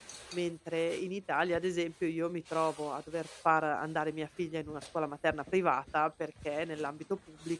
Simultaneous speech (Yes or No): No